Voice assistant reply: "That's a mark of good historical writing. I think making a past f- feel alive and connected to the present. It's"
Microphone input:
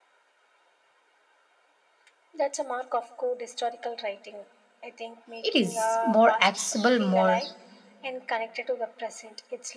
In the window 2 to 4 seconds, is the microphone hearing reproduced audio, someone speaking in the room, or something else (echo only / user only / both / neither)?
echo only